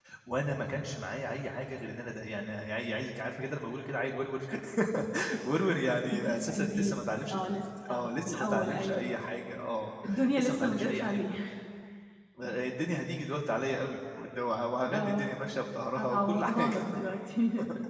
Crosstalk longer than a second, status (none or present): present